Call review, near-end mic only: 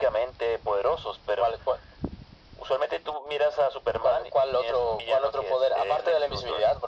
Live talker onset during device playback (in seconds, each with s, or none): none